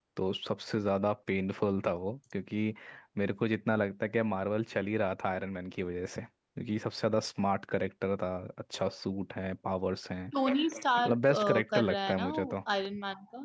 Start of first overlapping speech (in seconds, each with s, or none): 11.0 s